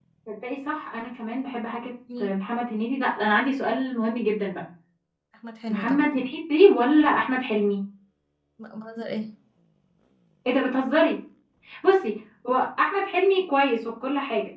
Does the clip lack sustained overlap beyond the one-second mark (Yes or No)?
Yes